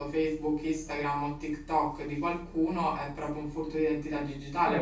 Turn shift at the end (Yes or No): Yes